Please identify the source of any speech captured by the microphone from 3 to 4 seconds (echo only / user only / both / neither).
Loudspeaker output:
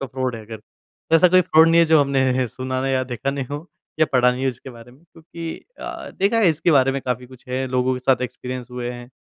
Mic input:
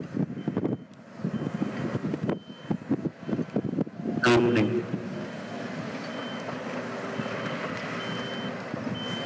neither